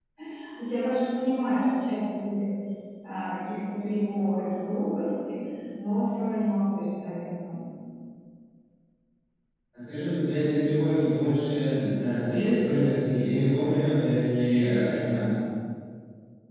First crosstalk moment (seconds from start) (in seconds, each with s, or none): none